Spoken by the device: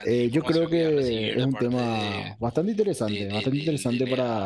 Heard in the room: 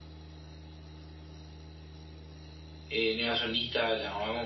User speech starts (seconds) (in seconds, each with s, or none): 2.9 s